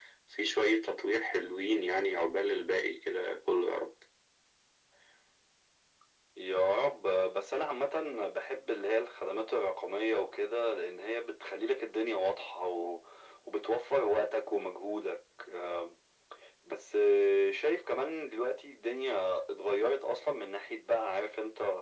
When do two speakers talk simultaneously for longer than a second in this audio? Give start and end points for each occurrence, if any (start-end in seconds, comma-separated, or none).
none